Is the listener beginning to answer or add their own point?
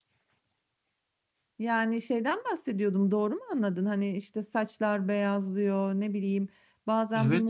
No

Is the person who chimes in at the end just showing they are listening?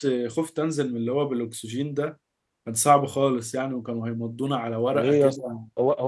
No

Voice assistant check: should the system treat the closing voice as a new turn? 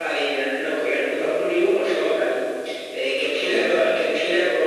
No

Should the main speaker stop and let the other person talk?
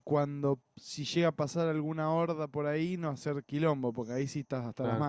Yes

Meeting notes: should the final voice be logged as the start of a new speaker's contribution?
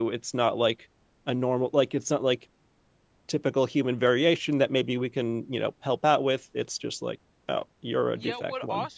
Yes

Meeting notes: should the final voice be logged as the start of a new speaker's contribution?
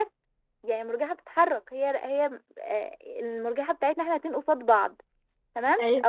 No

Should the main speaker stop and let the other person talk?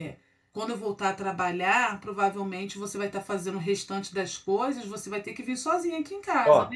Yes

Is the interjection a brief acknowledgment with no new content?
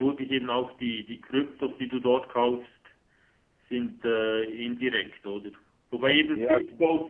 Yes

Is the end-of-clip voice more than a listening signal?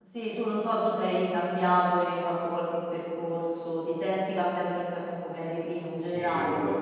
Yes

